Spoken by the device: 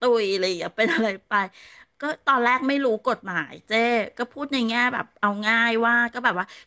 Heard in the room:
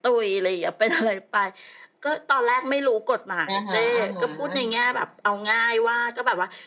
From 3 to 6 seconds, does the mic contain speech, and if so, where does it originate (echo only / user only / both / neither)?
both